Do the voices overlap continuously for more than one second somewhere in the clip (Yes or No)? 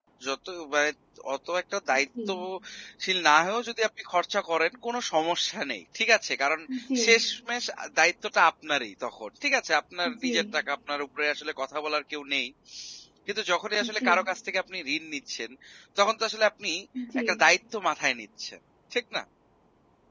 No